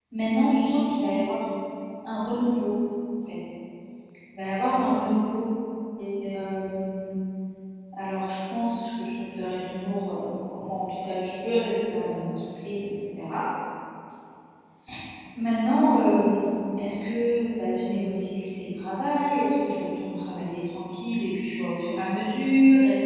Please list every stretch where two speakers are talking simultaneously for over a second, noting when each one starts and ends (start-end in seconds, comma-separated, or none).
none